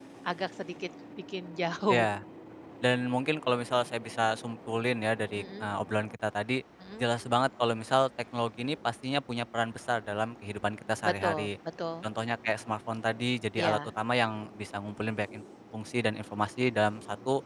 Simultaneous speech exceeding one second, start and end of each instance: none

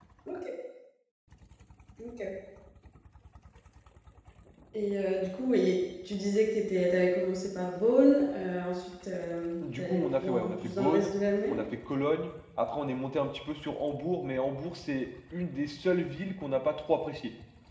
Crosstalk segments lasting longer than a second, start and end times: 9.8-11.1

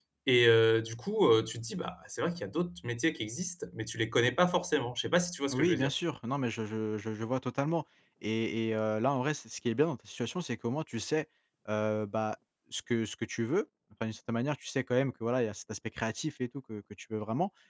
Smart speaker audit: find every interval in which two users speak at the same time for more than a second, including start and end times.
none

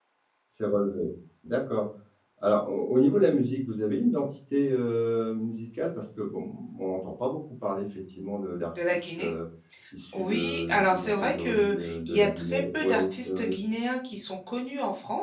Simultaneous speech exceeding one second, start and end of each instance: 10.1-13.6

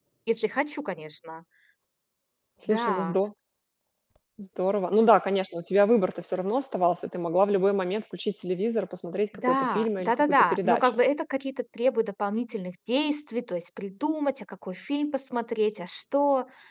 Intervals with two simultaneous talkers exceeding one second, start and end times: 9.3-11.0

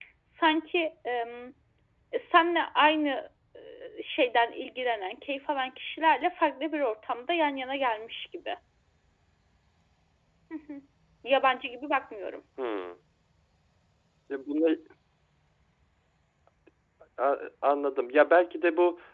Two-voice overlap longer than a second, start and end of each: none

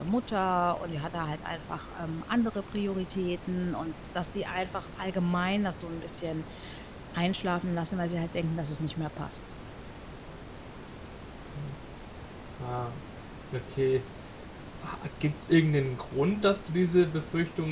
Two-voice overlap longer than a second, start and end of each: none

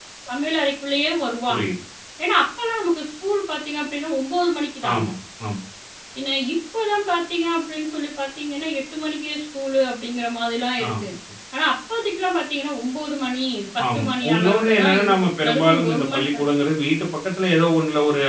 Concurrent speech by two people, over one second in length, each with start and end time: 13.9-16.4

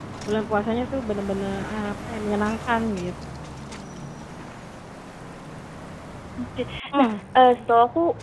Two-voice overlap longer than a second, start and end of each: none

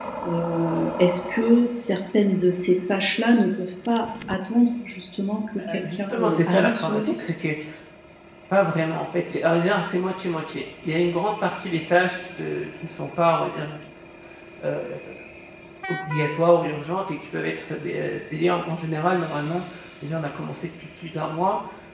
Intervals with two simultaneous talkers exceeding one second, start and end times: 5.6-7.2

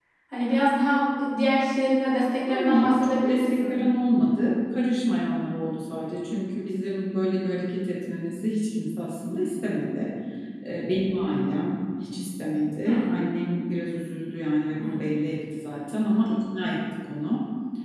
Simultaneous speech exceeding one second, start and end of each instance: 2.5-3.8

